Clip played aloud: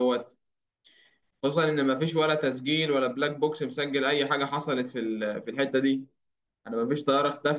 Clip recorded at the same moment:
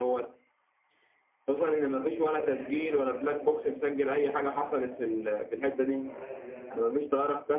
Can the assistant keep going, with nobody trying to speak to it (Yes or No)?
No